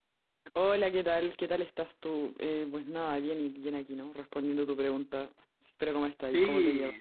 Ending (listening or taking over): taking over